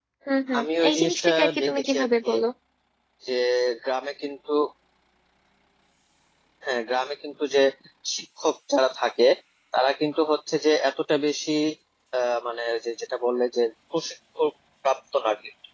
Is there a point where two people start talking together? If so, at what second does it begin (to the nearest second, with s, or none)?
1 s